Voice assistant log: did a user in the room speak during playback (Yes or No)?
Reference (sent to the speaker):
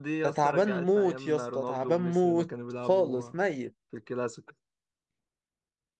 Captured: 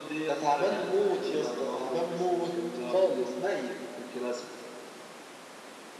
No